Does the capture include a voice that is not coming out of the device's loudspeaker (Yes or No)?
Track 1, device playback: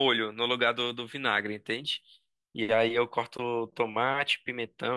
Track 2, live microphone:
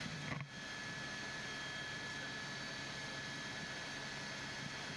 No